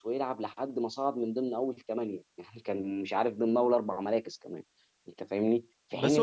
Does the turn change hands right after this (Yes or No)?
Yes